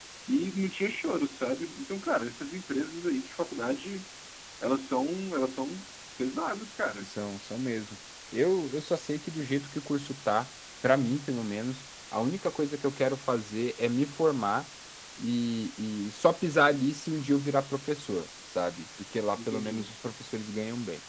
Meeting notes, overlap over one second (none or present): none